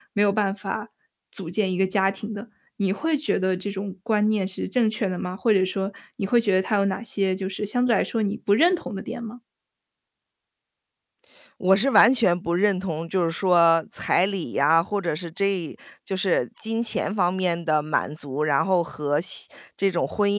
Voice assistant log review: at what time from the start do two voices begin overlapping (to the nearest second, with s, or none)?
none